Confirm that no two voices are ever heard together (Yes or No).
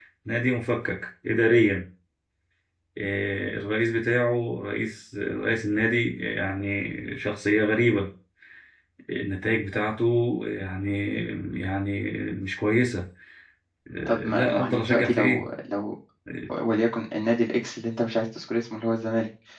No